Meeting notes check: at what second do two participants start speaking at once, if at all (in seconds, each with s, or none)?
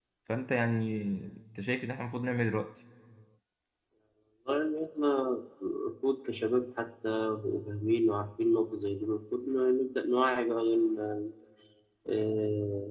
none